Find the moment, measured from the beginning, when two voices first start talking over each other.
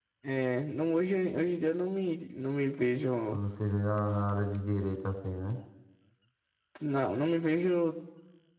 none

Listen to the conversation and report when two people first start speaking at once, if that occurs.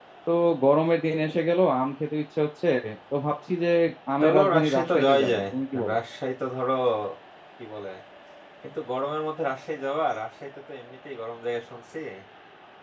4.2 s

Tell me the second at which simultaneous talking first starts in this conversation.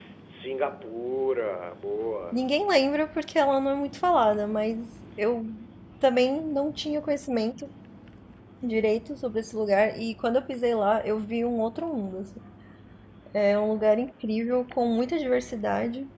none

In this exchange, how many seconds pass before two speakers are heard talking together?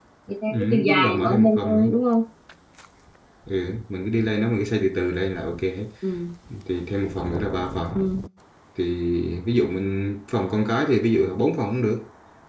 0.5 s

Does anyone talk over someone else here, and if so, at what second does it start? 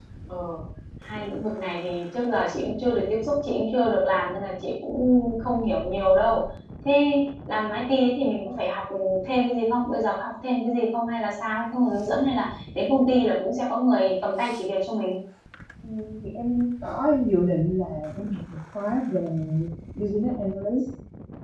none

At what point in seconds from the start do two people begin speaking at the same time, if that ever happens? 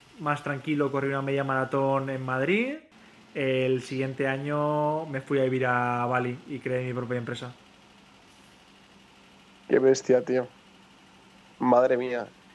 none

